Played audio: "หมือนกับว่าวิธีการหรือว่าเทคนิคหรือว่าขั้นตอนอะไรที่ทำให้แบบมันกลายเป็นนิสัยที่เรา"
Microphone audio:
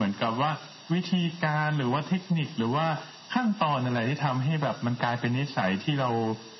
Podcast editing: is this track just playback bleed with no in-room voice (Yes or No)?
Yes